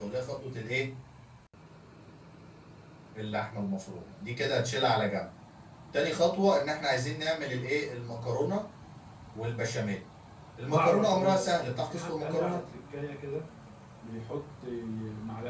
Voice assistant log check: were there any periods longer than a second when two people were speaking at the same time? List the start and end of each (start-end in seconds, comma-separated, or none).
10.7-12.6